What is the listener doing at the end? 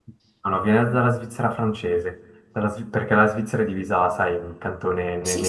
listening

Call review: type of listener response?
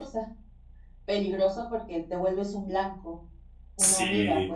taking over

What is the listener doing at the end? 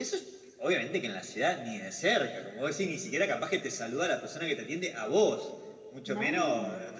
listening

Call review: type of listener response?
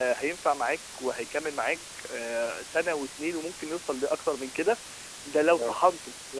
listening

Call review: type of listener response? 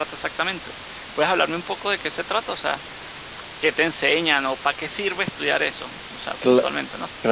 taking over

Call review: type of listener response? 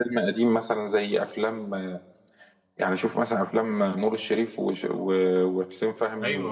listening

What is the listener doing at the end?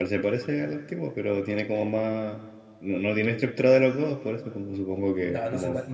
taking over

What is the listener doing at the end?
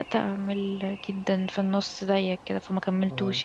taking over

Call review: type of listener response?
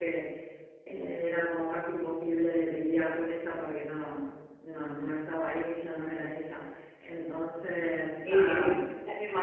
taking over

